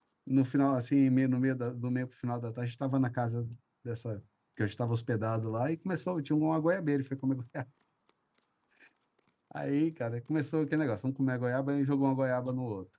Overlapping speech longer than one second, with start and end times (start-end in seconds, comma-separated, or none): none